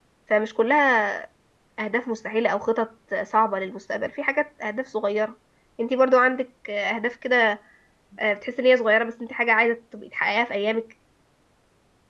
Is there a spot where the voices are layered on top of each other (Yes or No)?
No